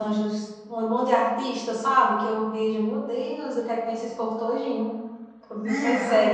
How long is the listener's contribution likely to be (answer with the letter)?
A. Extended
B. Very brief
A